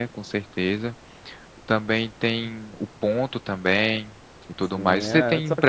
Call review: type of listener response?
taking over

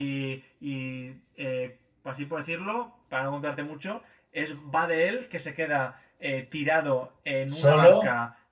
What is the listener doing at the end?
listening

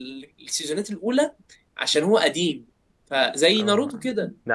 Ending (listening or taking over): taking over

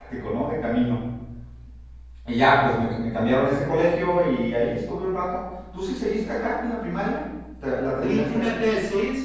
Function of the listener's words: taking over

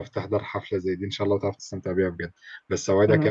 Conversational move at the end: listening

